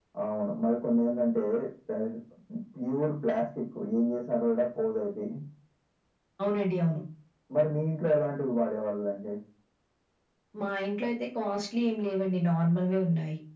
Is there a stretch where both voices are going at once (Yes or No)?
No